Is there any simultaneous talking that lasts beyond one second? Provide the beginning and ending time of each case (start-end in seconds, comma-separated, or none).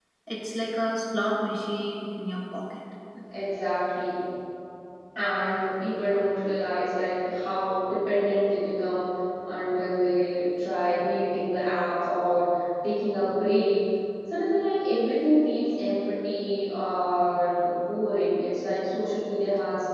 none